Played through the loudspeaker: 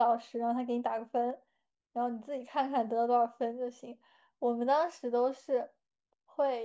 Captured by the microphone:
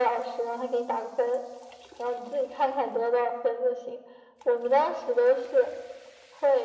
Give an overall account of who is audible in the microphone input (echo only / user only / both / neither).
echo only